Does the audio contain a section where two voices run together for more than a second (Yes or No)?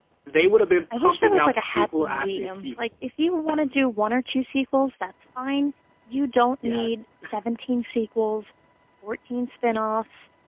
Yes